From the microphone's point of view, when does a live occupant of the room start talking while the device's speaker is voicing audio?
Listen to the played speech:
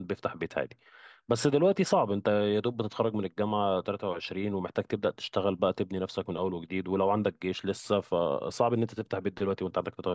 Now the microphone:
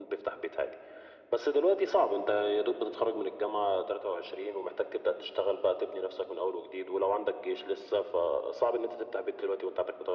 none

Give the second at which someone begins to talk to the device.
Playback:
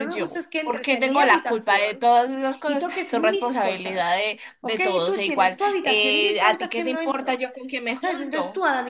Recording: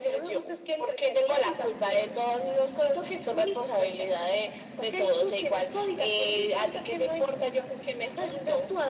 none

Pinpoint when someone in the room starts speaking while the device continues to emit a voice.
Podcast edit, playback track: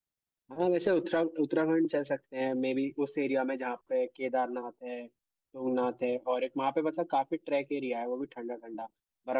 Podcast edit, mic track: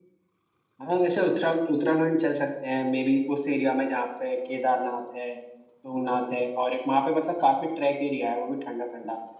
none

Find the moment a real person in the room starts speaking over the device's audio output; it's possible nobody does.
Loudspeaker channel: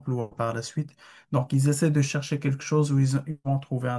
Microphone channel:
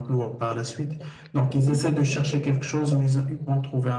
none

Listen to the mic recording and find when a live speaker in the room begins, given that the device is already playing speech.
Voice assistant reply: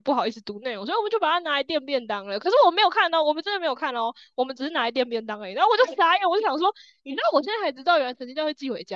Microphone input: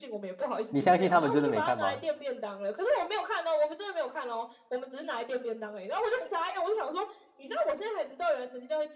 1 s

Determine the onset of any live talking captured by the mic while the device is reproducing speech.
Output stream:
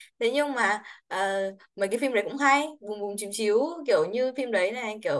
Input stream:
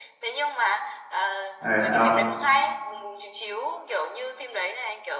2 s

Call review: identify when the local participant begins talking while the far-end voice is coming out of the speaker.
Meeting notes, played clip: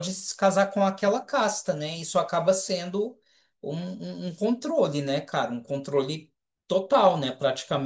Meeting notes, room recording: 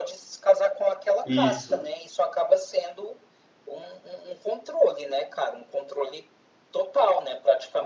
1 s

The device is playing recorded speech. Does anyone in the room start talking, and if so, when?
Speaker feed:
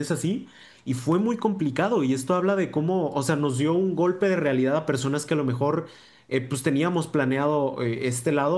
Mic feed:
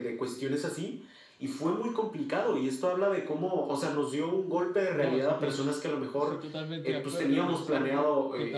5 s

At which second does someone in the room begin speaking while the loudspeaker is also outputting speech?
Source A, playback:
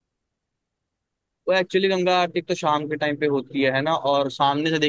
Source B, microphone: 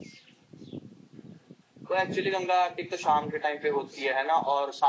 none

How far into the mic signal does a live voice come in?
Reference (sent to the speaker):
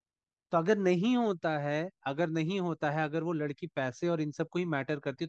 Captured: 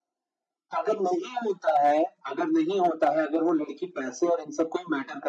none

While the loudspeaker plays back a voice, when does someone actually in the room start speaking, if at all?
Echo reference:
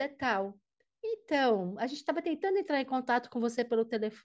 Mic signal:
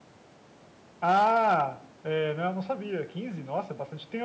1 s

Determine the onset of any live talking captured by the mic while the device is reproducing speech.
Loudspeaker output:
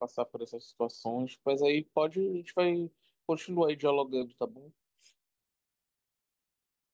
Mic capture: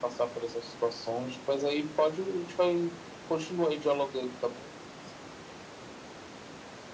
none

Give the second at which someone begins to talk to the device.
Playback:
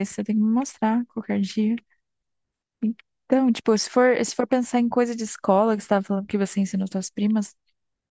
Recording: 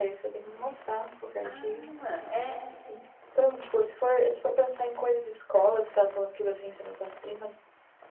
1 s

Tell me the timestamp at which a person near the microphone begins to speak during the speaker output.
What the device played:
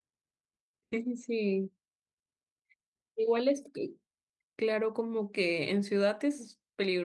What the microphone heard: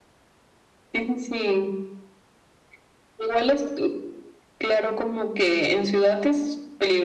none

